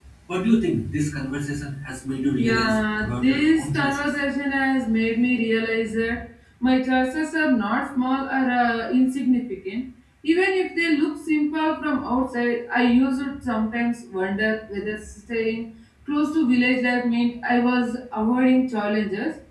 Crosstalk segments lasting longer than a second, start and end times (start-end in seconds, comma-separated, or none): 2.4-4.1